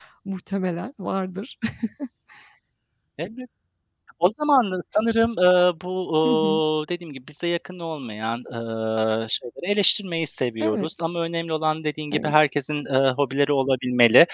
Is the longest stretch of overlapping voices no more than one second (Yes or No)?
Yes